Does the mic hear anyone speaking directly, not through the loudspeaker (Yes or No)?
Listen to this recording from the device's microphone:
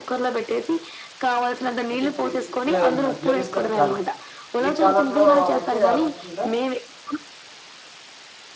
Yes